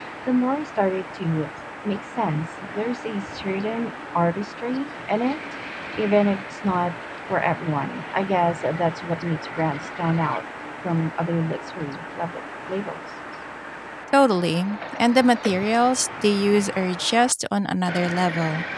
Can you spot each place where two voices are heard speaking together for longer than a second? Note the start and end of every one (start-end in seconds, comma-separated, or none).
none